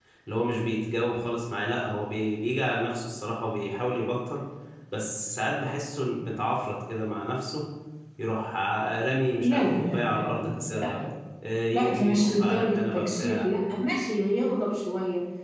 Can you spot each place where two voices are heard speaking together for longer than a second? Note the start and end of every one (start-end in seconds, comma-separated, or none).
9.4-11.0, 11.7-13.5